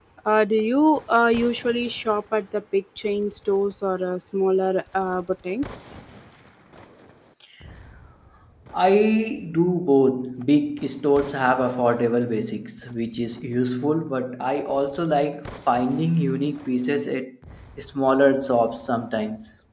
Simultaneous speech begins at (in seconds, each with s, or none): none